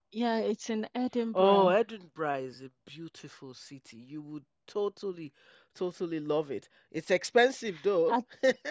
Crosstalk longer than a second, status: none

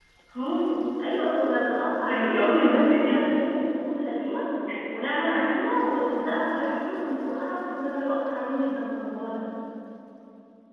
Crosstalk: present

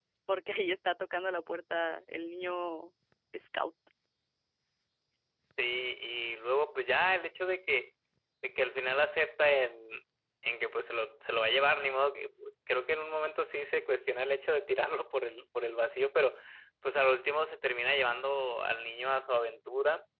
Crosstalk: none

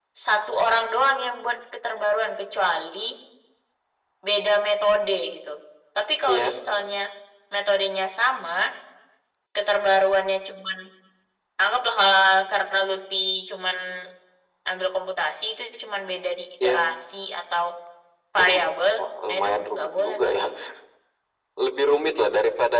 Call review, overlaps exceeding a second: present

